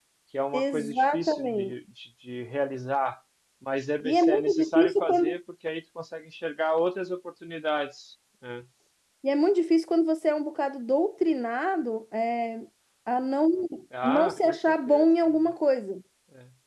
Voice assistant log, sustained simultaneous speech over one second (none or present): present